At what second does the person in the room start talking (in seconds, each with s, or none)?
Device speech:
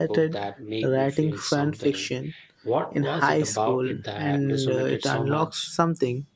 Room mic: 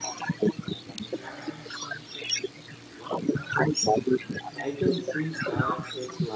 4.5 s